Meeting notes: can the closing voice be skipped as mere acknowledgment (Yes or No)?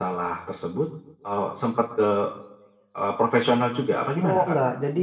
No